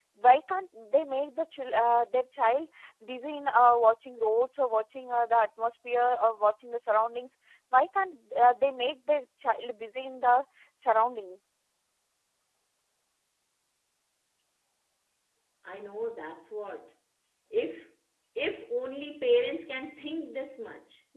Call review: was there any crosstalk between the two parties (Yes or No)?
No